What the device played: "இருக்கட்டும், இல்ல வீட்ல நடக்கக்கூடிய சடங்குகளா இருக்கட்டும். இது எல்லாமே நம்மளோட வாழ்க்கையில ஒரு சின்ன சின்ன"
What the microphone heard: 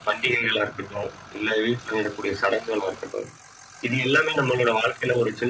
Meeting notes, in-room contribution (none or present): none